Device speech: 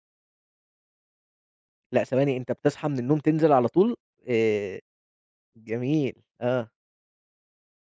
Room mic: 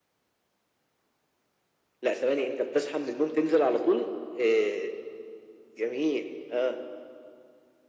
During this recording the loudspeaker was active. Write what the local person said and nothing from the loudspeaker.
none

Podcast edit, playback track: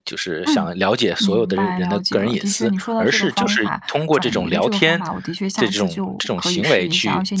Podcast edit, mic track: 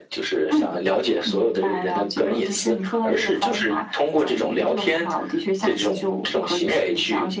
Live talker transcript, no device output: none

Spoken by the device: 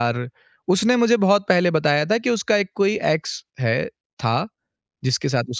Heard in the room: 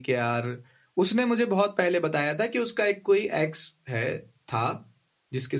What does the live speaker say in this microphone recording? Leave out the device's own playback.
none

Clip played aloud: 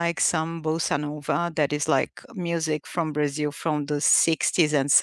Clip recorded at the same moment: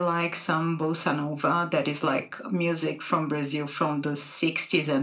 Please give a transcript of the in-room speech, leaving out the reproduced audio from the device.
none

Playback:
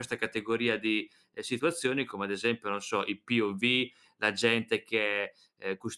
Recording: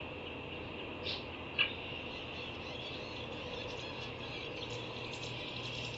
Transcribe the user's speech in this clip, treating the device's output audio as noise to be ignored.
none

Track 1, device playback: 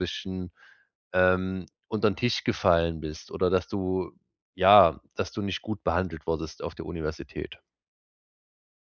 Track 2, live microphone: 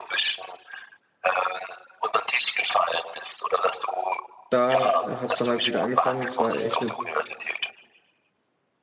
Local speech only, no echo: Da äh, hat's dann halt wieder angefangen. Es war echt eine

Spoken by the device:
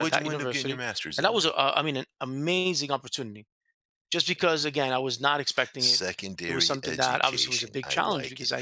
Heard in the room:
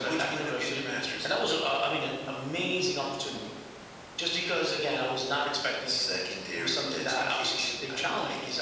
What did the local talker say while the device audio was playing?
none

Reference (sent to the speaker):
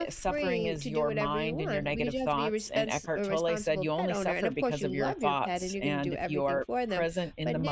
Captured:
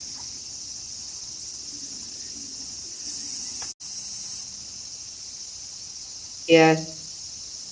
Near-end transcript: yes,

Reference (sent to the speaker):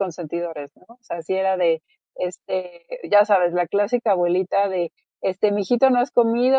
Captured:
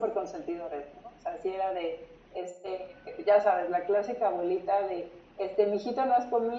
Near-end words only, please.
none

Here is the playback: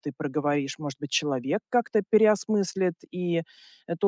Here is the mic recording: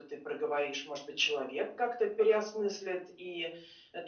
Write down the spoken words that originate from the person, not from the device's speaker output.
none

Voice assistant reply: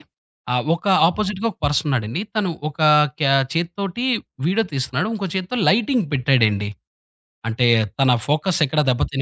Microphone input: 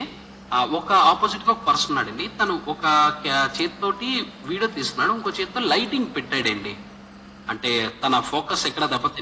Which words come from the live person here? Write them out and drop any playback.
none

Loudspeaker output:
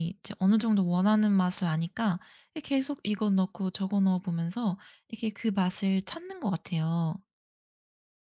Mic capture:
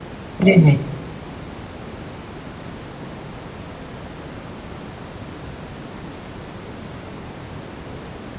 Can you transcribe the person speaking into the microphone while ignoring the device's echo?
네네.

